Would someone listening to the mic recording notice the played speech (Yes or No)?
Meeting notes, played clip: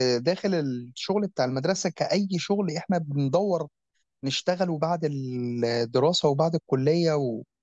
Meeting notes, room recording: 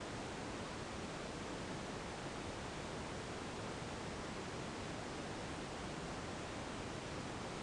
No